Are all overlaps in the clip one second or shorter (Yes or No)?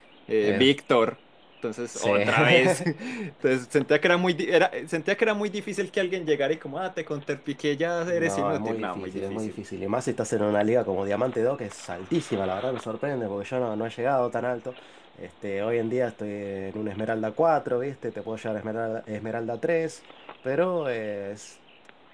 No